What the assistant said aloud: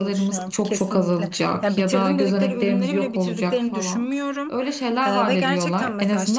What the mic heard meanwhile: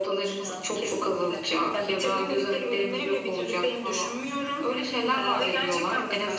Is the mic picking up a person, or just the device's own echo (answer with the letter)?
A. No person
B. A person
A